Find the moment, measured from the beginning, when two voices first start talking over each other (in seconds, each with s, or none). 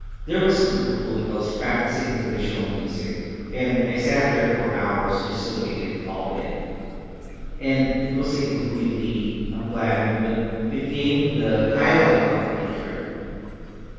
none